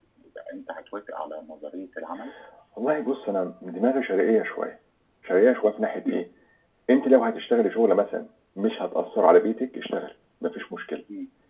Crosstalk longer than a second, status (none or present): none